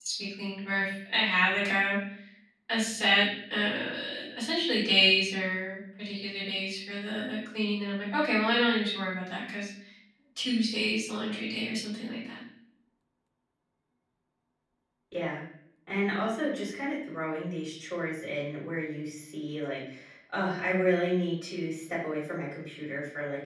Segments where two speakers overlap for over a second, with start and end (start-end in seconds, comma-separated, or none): none